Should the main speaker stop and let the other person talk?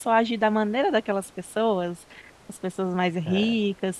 No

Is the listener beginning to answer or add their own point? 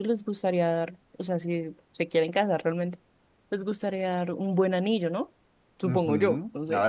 Yes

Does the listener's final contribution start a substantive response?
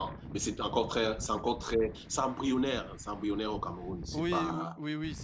Yes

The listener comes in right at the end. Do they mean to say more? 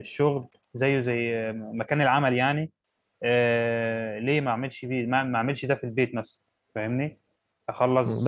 Yes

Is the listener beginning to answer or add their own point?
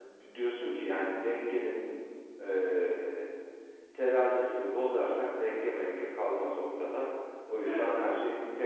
No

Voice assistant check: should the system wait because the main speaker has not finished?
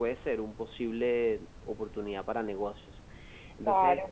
Yes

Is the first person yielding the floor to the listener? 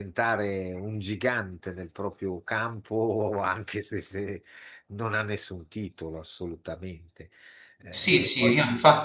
Yes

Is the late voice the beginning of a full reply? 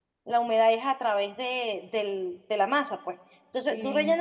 No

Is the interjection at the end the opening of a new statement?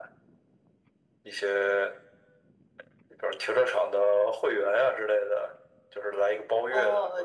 Yes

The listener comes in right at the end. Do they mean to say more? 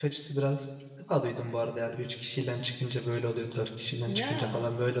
No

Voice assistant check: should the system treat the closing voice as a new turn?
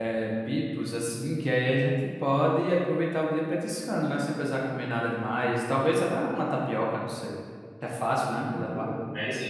Yes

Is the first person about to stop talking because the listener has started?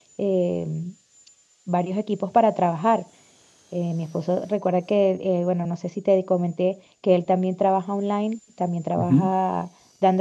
No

